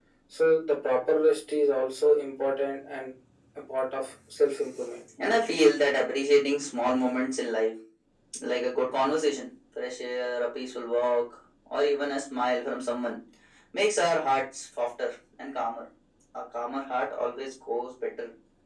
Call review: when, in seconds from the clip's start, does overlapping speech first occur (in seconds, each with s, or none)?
none